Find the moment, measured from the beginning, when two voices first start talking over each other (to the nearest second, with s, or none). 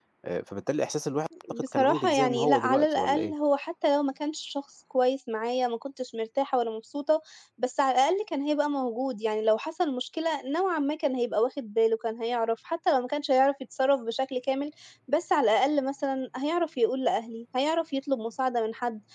1 s